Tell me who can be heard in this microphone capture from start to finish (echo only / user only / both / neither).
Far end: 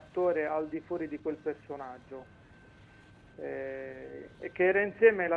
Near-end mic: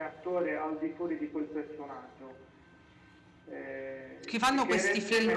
both